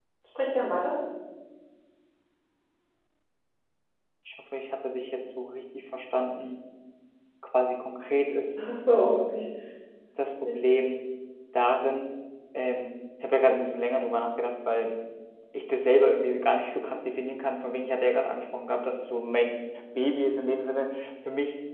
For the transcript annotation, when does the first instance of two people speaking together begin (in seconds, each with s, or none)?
none